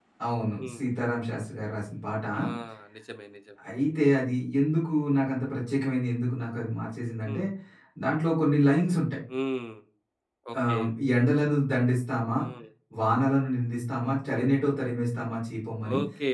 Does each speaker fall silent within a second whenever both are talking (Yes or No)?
Yes